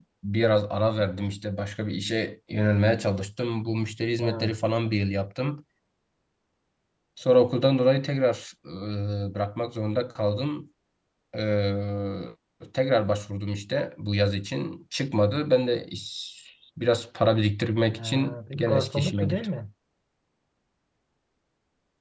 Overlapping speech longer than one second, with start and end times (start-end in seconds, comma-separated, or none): 18.0-19.5